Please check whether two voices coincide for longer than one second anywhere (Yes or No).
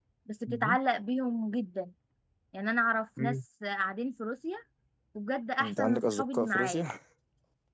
Yes